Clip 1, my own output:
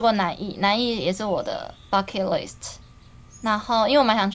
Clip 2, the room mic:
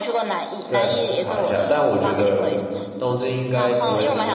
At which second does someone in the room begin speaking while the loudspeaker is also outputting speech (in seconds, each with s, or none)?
0.6 s